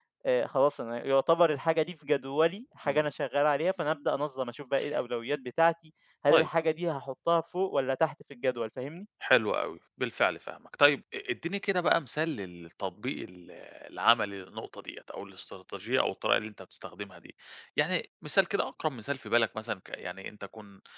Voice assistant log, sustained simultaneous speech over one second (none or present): none